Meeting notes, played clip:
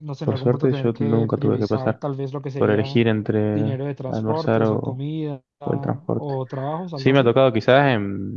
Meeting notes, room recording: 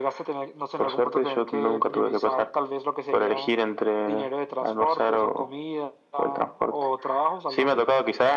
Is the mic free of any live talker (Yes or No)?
Yes